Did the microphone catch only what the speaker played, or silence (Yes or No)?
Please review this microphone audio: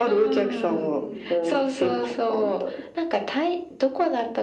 No